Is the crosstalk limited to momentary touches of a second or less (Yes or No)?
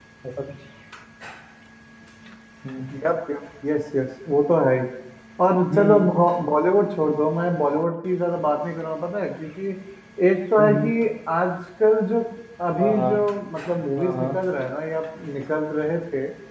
Yes